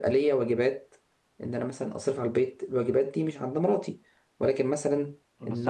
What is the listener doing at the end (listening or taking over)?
taking over